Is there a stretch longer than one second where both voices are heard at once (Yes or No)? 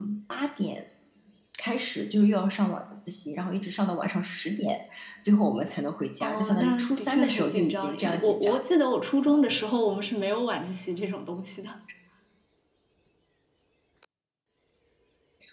Yes